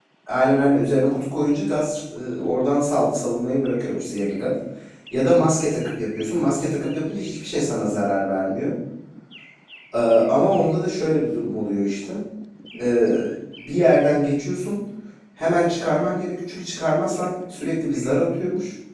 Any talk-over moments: No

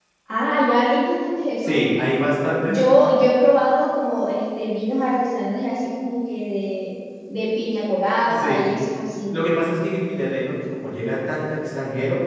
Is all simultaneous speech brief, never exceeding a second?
Yes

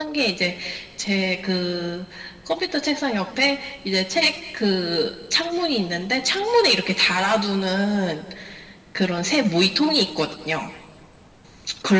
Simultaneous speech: No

